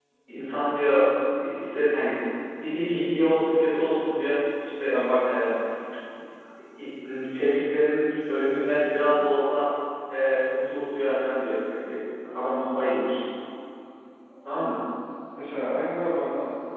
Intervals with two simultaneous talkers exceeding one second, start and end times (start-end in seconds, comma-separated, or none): none